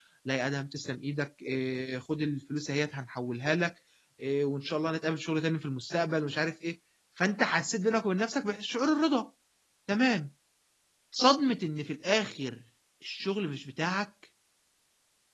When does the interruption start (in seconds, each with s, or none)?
none